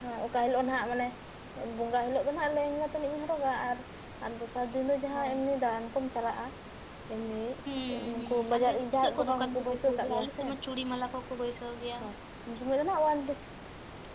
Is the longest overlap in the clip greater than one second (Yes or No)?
Yes